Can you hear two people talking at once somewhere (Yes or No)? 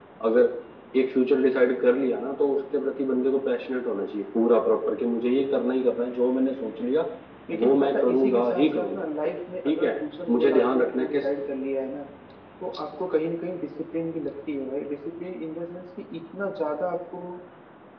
Yes